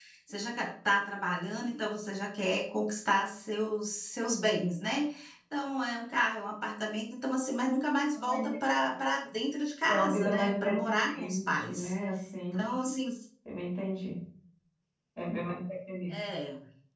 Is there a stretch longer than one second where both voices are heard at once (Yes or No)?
Yes